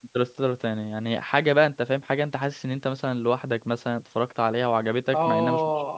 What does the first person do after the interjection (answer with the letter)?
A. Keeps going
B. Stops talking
B